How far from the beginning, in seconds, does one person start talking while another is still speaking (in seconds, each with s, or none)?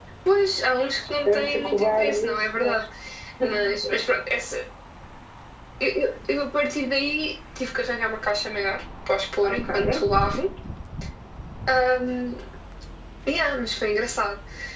1.2 s